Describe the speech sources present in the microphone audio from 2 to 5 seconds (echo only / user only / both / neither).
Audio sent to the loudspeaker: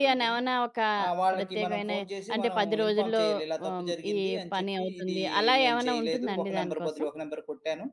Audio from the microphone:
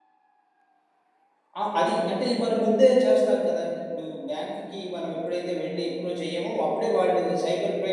user only